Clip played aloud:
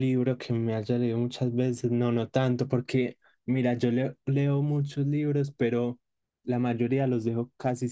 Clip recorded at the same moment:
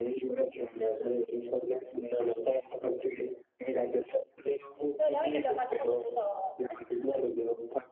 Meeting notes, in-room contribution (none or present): present